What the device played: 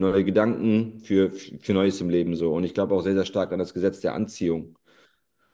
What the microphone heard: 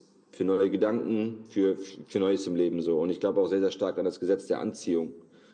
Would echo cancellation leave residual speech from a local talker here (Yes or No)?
No